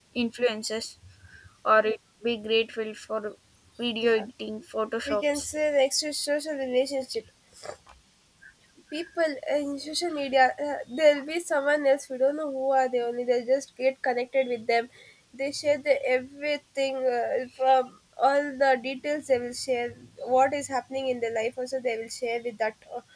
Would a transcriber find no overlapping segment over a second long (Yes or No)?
Yes